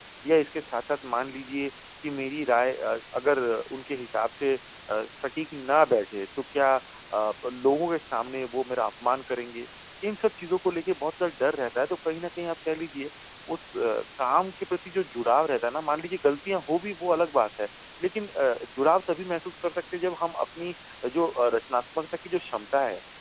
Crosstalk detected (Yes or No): No